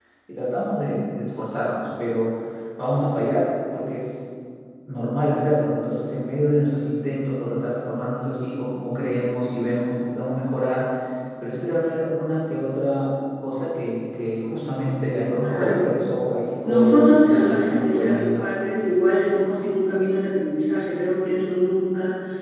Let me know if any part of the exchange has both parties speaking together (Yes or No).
Yes